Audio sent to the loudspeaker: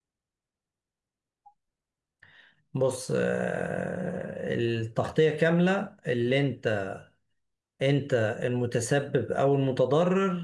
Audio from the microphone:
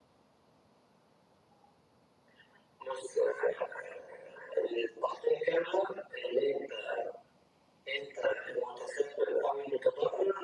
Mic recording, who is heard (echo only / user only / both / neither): echo only